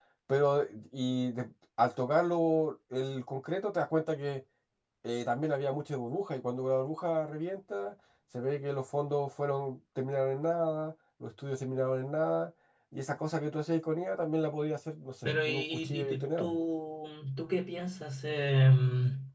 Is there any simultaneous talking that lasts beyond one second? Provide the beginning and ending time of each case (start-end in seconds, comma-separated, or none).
15.2-16.5